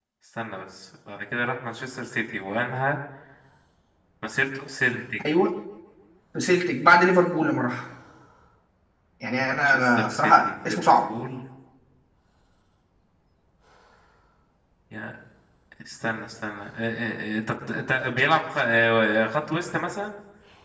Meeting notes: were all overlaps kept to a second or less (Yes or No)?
No